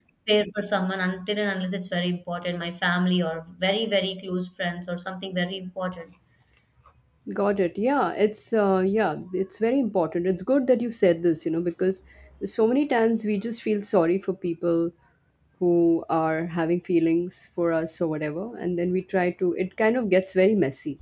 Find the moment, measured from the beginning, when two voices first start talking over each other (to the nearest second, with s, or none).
none